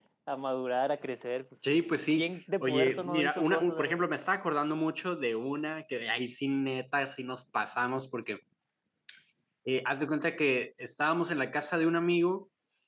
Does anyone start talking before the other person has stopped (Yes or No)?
Yes